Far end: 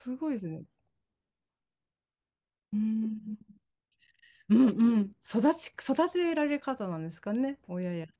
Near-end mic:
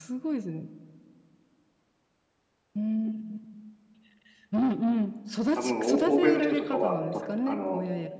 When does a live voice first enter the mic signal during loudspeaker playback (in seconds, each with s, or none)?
5.5 s